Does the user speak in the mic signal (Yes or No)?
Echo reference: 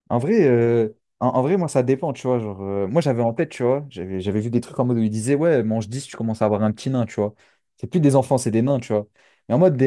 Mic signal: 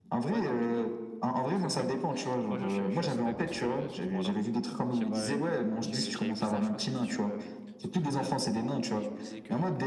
Yes